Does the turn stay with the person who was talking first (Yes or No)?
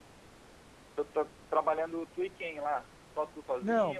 No